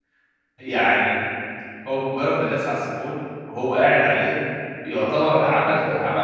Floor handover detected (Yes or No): No